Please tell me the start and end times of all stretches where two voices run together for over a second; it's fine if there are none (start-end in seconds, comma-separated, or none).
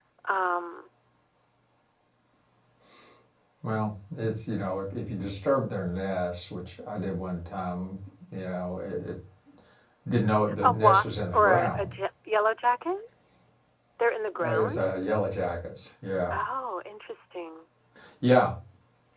10.6-11.9